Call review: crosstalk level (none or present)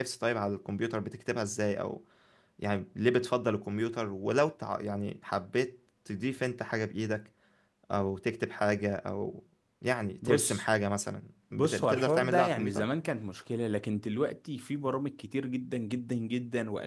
present